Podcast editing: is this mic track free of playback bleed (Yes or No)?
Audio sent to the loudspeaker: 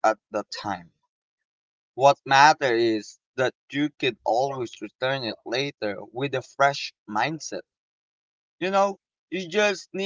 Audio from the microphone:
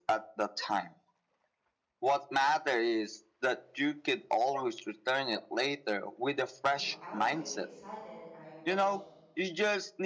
No